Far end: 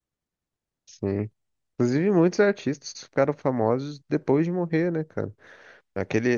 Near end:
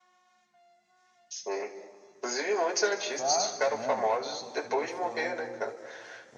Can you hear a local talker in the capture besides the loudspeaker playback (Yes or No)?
Yes